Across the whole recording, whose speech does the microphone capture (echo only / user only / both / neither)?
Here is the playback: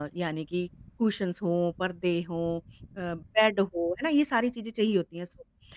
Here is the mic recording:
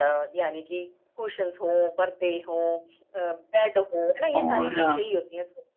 both